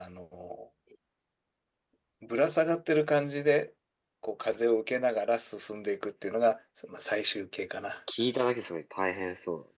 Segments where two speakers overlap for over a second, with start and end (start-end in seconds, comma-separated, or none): none